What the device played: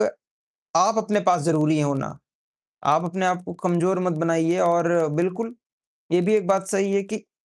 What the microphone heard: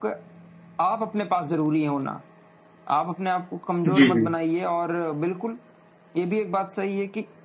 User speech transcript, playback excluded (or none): जी, जी।